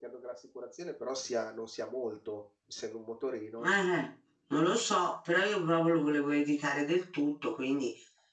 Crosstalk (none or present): none